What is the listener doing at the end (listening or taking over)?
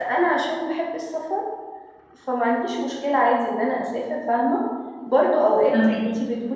listening